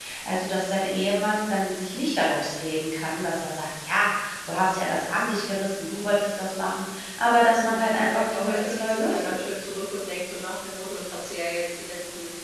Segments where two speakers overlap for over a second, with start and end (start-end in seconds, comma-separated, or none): 7.6-9.4